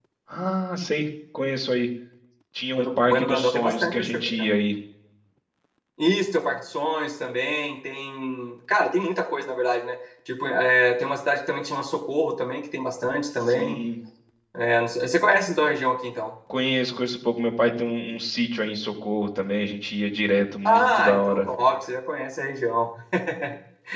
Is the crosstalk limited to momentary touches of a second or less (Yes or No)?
No